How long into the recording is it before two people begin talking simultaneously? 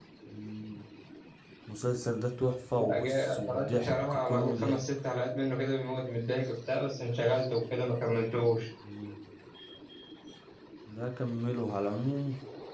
2.7 s

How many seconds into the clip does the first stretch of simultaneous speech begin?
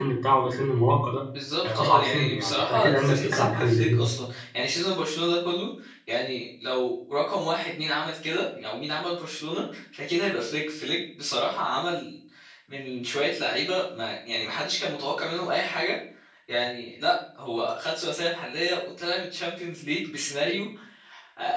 1.6 s

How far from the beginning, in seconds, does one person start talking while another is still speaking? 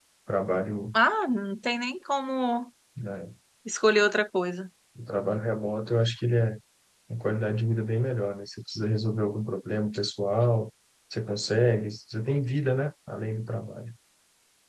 none

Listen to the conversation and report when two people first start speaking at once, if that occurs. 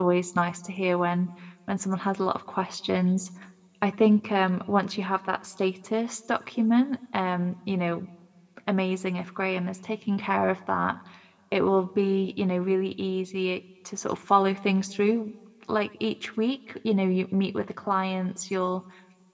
none

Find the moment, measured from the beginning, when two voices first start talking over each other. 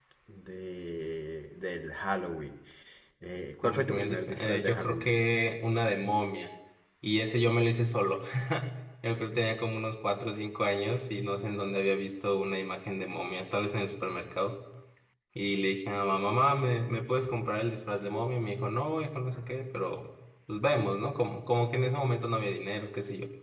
3.6 s

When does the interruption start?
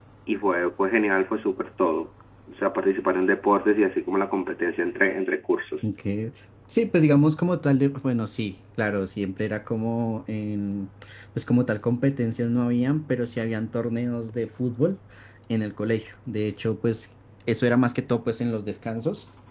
none

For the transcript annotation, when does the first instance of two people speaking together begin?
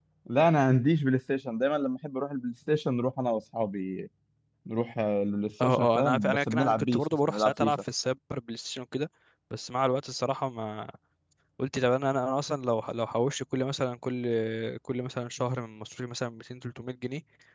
5.6 s

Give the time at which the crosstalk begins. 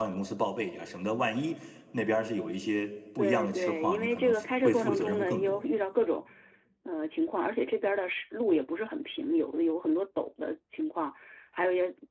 3.2 s

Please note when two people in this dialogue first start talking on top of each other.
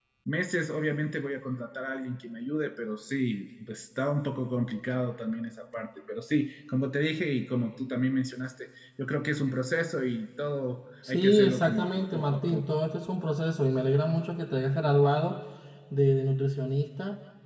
11.0 s

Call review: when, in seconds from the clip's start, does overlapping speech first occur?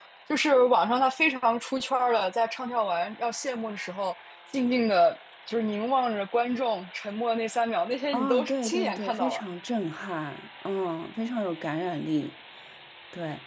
8.1 s

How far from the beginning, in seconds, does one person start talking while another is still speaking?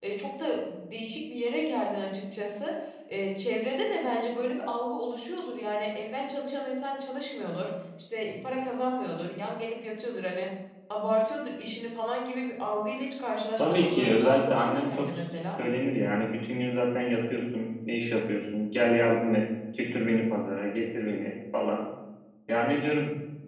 13.6 s

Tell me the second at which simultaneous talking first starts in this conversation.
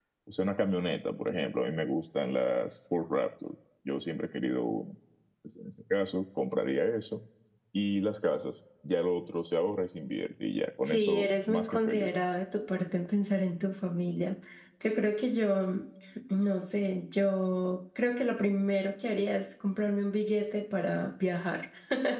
10.8 s

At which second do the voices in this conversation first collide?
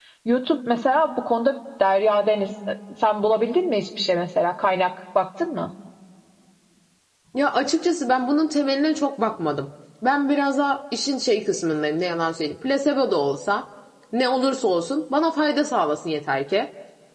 none

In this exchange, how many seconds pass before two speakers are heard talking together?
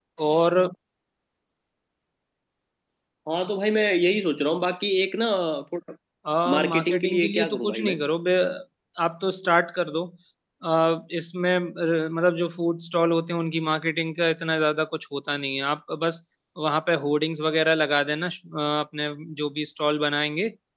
6.5 s

